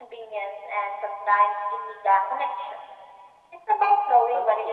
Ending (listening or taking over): taking over